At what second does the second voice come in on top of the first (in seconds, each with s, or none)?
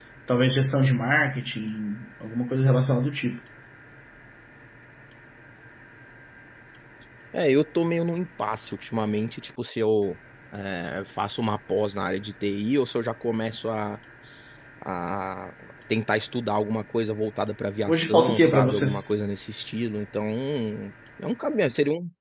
17.9 s